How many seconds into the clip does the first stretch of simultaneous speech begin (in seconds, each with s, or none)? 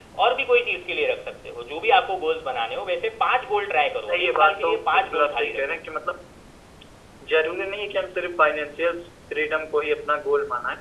4.1 s